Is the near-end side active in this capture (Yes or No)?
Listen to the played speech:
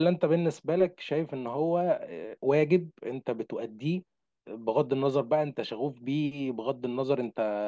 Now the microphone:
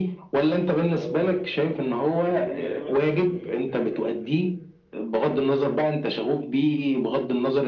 Yes